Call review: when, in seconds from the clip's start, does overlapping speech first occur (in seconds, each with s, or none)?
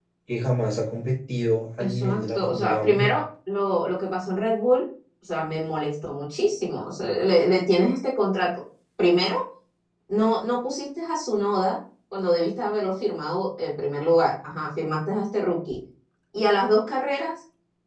1.8 s